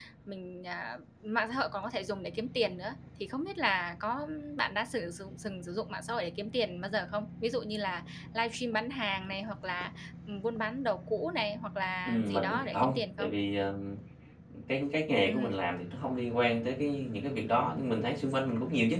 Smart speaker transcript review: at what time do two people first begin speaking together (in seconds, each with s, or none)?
12.1 s